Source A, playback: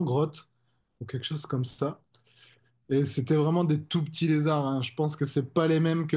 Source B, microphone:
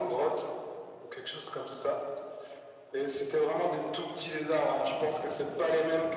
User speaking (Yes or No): No